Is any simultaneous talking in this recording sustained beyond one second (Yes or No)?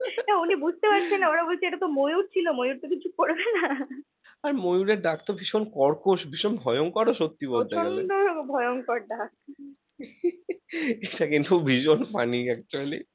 No